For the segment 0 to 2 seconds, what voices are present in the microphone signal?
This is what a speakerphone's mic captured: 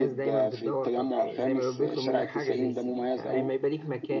both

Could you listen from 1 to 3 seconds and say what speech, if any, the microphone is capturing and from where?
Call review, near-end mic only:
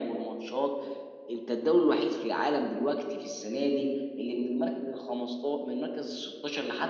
echo only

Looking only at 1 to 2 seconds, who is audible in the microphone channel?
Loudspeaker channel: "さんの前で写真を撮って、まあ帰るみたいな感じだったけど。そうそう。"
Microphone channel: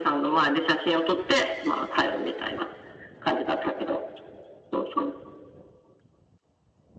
echo only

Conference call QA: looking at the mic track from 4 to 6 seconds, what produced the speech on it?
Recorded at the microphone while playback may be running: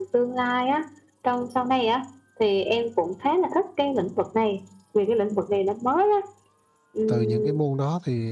echo only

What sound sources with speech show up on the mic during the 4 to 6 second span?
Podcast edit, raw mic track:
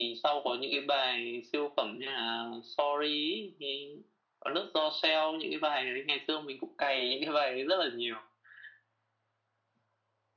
echo only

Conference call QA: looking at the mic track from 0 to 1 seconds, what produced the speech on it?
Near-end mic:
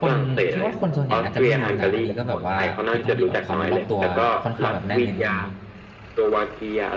both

